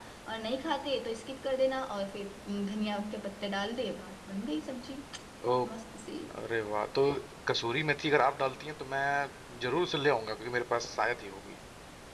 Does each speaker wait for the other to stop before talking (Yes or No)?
Yes